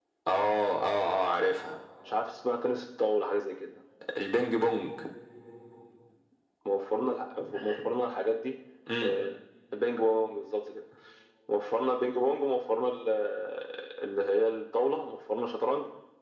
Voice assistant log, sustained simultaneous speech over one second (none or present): none